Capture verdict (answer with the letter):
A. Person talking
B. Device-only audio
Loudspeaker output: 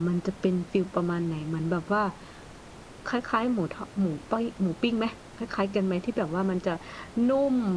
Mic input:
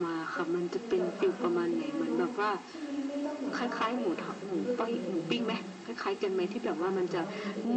A